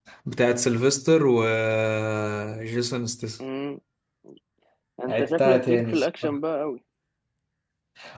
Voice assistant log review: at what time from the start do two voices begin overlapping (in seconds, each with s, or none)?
5.1 s